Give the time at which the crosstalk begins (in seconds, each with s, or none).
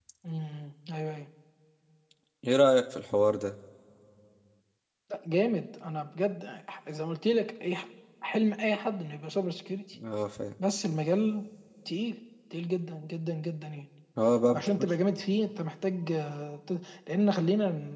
none